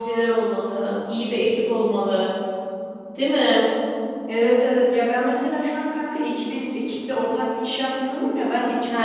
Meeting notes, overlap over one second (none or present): none